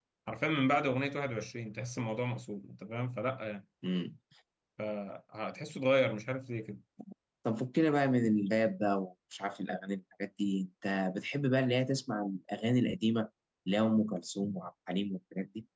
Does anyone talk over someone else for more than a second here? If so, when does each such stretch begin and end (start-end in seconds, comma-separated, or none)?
none